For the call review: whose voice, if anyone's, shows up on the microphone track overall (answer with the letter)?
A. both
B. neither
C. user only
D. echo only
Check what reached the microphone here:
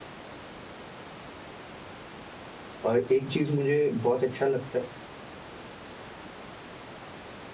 C